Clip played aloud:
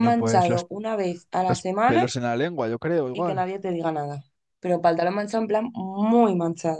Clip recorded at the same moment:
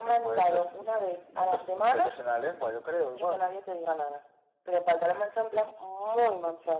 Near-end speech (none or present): none